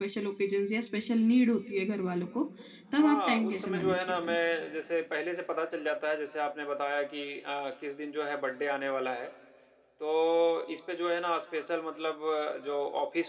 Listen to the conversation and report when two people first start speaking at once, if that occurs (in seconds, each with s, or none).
3.0 s